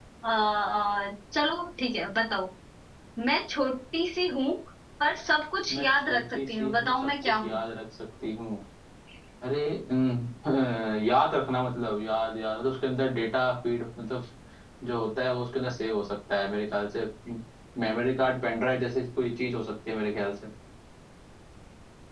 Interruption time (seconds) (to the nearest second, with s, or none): 6 s